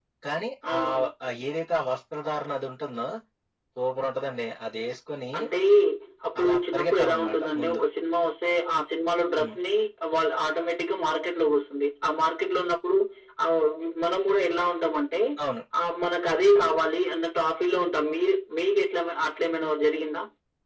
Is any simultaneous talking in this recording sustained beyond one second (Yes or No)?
Yes